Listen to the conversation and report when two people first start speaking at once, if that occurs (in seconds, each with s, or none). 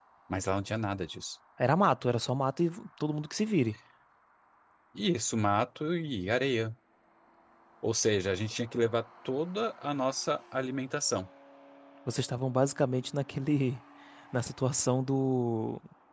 none